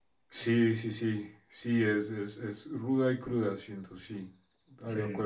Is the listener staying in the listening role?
Yes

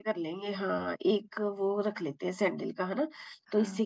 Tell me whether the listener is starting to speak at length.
No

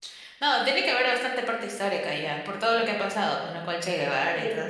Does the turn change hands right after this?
Yes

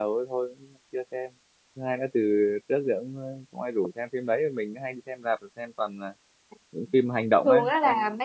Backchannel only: No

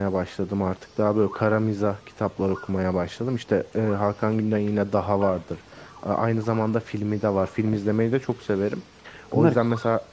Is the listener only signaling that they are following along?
Yes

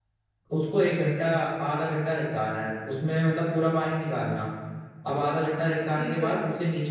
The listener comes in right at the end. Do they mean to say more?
No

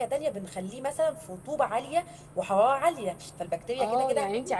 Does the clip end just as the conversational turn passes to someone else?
Yes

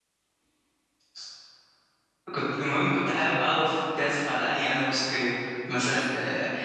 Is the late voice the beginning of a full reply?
No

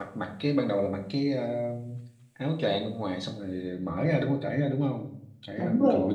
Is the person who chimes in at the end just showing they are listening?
No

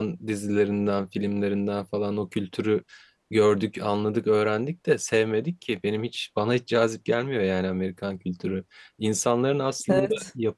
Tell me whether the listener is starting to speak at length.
No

